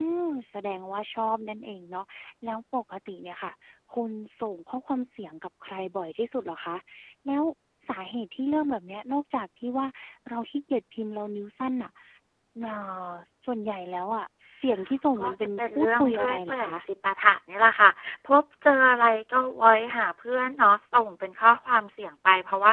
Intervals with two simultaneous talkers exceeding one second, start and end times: 15.2-16.7

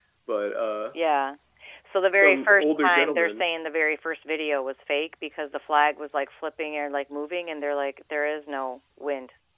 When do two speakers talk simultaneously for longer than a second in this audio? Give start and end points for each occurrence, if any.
2.2-3.5

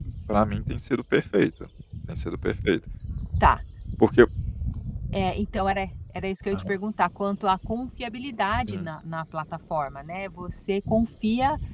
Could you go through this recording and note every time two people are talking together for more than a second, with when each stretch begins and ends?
none

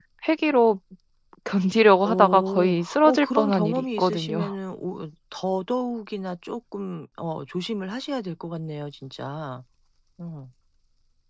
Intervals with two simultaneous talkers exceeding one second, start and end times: 2.0-4.5

